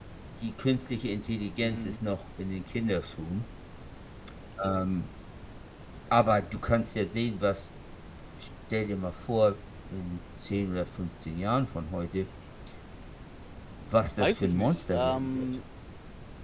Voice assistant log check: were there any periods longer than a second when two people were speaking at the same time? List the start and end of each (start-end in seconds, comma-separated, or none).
14.2-15.5